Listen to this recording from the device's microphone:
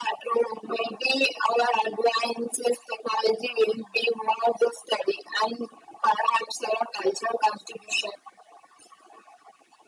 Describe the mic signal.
echo only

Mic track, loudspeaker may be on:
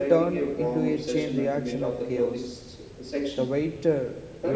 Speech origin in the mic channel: both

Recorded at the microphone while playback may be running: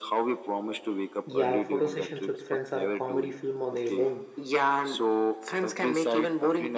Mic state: both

